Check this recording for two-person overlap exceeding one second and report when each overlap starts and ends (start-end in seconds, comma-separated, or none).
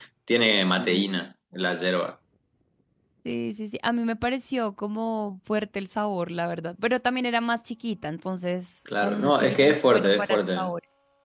9.0-10.7